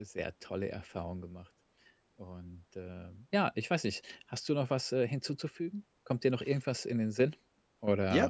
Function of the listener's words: taking over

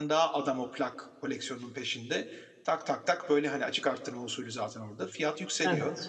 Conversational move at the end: listening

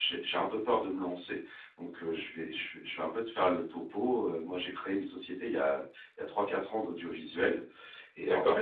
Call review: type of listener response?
listening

